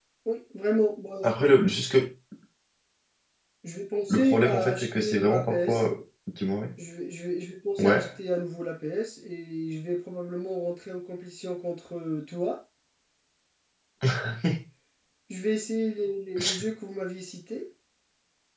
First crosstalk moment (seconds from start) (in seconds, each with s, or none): 4.1 s